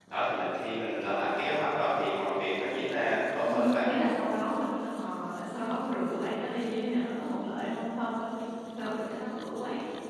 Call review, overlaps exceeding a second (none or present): none